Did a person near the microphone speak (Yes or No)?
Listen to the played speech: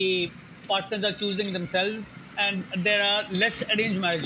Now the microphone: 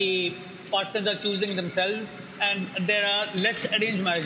No